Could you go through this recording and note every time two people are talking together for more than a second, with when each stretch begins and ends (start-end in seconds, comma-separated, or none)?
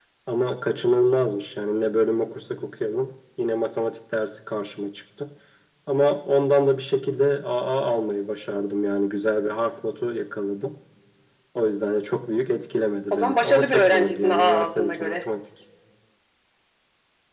13.1-15.2